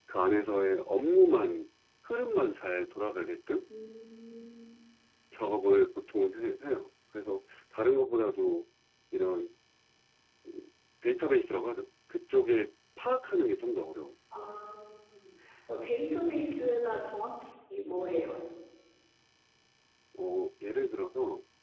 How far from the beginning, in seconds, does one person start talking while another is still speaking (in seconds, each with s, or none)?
none